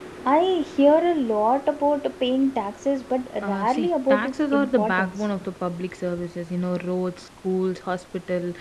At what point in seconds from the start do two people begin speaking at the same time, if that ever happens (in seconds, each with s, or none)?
3.4 s